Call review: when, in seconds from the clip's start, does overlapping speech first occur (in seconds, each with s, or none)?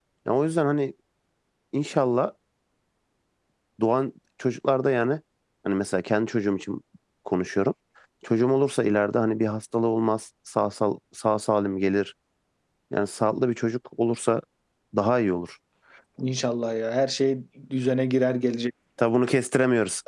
none